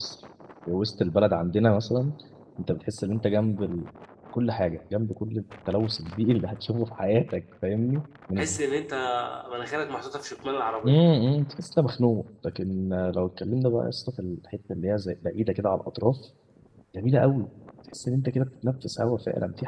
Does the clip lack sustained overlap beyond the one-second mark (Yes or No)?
Yes